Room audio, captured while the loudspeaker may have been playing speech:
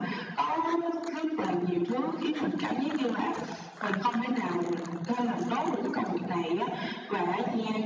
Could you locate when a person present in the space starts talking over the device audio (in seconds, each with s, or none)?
none